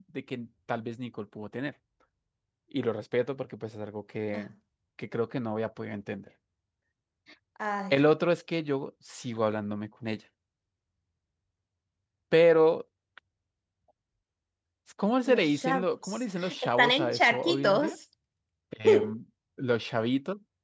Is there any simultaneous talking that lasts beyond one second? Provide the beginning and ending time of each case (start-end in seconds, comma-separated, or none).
15.2-17.9